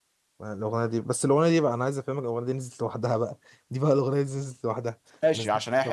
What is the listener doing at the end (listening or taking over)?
taking over